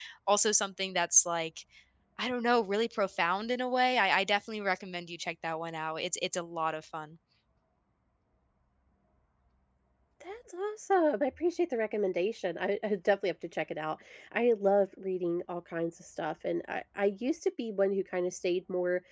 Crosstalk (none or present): none